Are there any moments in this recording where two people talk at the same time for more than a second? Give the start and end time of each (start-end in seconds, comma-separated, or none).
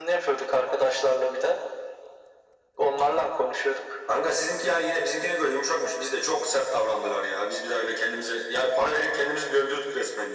none